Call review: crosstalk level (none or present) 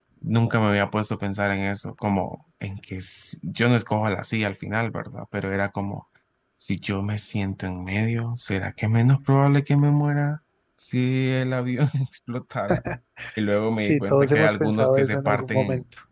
present